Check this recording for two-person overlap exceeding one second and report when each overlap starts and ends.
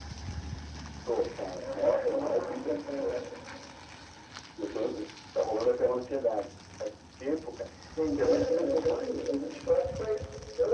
1.6-3.2, 8.1-9.6

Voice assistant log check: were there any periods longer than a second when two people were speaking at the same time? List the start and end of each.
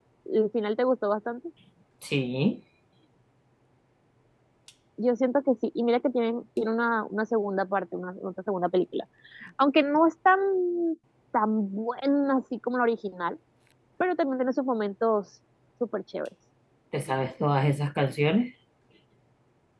none

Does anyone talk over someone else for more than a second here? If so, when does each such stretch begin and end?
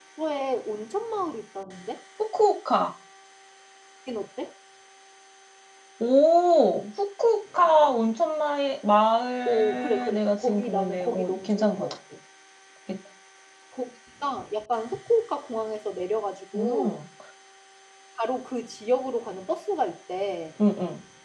9.4-11.9

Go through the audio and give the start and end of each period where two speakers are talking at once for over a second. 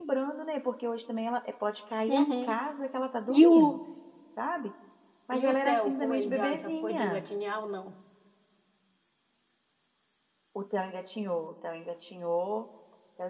5.4-7.2

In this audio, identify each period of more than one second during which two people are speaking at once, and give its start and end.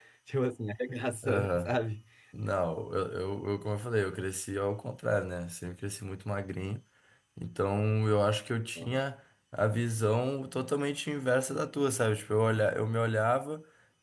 none

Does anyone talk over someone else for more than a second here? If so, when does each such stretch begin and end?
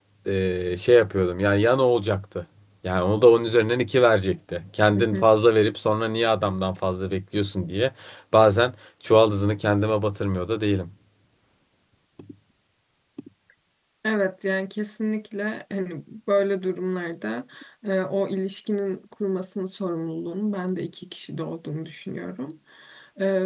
none

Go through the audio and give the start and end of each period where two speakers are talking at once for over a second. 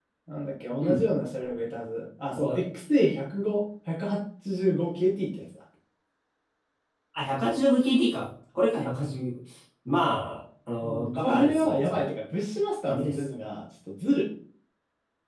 10.8-12.1

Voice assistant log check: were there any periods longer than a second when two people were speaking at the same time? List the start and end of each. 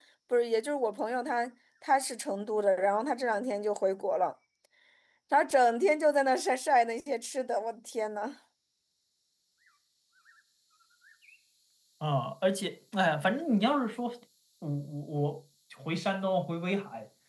none

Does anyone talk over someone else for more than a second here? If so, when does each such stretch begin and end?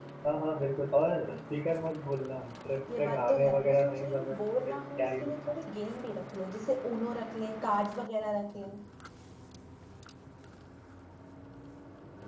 3.0-5.5

